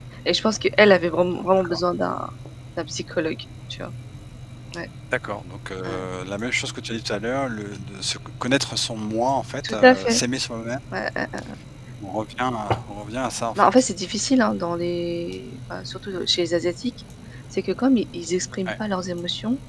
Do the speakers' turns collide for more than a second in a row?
No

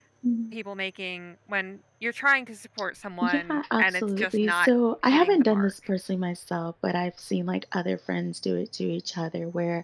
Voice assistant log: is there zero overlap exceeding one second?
No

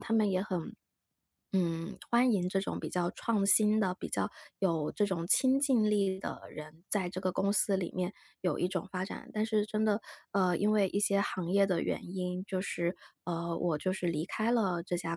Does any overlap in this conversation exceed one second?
No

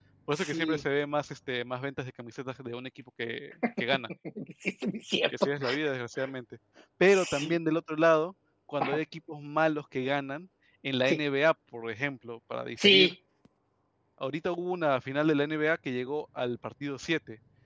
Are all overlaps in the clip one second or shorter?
Yes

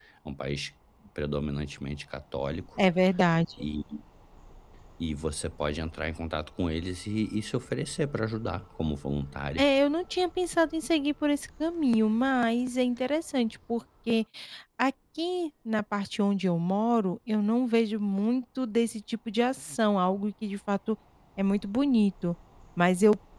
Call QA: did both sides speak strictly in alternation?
Yes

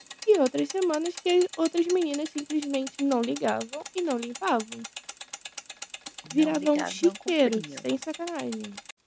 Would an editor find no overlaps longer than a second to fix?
No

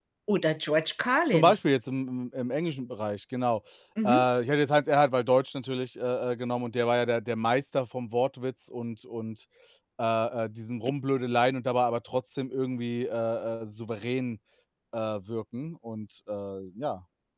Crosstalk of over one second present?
No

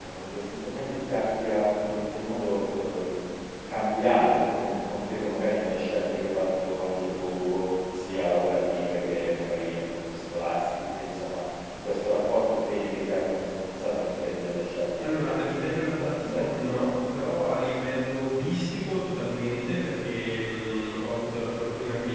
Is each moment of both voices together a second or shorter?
No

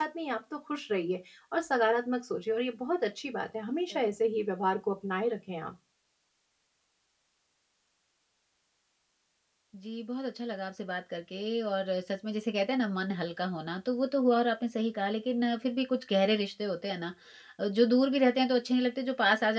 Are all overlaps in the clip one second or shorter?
Yes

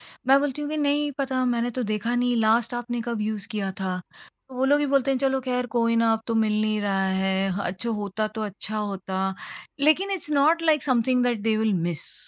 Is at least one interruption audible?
No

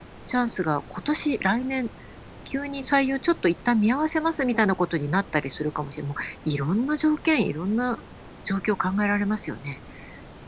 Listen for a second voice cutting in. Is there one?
No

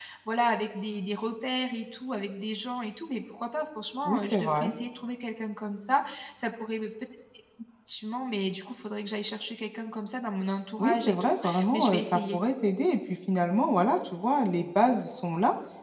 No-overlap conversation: No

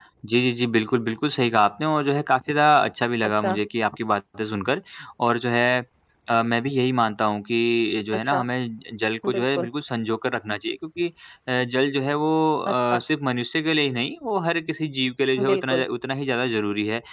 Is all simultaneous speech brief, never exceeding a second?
Yes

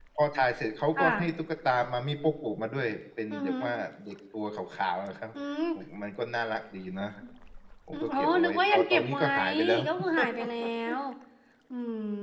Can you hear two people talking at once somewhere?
Yes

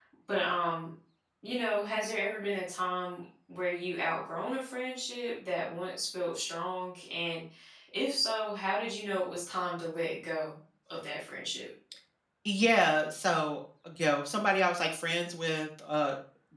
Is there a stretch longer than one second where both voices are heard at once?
No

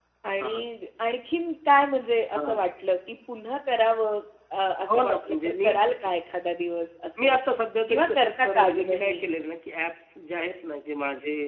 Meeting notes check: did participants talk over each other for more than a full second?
Yes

